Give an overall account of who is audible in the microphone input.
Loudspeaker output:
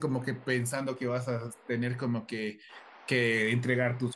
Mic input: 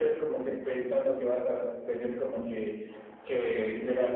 echo only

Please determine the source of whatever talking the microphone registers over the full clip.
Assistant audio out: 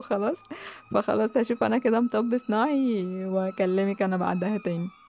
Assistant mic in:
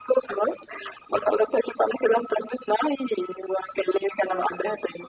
echo only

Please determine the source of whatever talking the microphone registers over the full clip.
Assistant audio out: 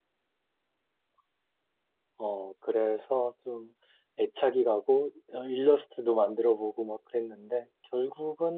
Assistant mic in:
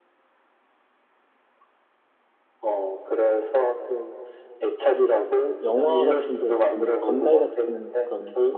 both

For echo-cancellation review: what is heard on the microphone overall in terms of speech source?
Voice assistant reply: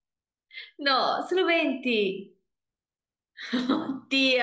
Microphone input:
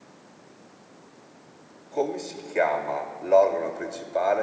user only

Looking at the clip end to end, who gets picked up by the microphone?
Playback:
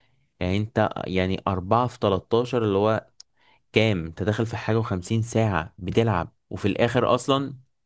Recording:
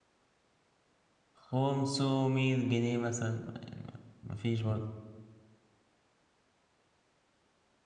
user only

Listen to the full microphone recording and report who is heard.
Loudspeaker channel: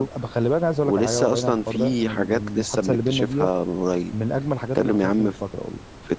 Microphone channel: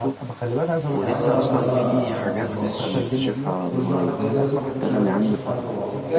both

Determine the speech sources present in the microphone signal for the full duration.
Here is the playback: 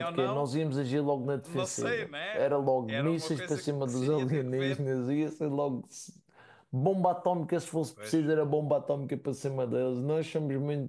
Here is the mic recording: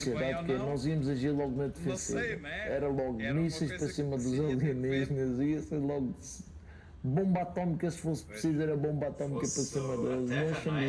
both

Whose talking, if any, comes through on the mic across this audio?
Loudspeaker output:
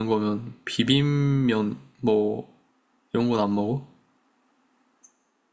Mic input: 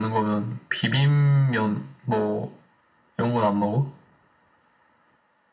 echo only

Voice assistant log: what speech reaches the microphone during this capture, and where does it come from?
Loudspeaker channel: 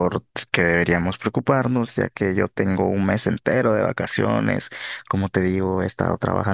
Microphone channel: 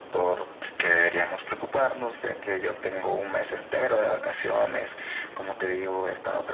echo only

